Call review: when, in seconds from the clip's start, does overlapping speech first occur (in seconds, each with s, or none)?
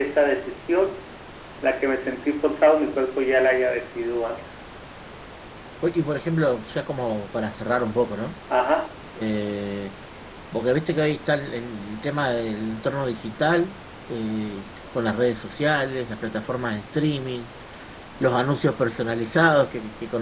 none